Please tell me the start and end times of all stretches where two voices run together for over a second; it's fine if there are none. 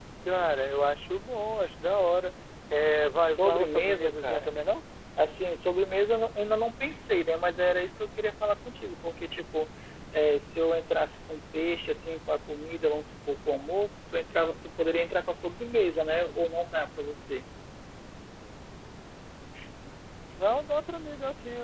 3.2-4.6

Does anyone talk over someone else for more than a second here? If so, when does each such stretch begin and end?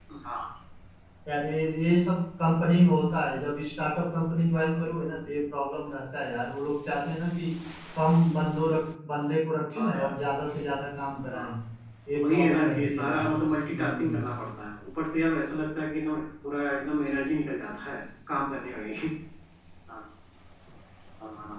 12.1-14.2

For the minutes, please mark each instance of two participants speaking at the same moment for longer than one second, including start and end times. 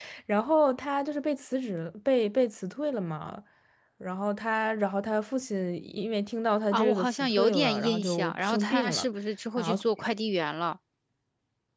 6.7-9.1

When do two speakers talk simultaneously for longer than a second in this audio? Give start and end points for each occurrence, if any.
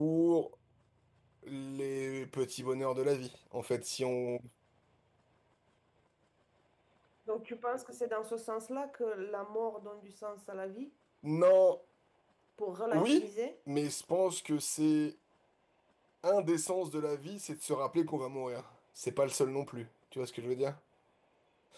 none

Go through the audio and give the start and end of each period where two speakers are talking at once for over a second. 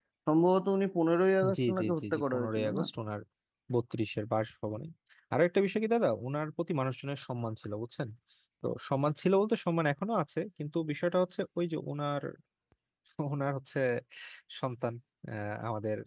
1.5-2.8

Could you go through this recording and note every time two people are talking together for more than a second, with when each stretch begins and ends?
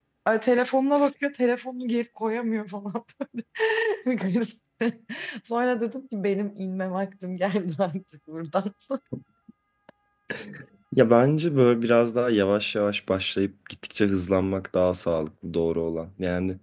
none

